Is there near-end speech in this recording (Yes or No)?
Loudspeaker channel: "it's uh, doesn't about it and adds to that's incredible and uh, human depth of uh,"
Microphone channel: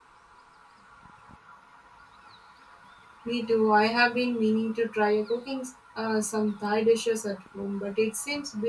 Yes